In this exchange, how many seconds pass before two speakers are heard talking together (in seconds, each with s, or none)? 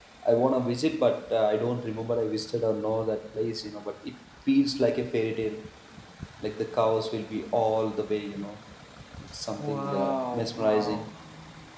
9.5 s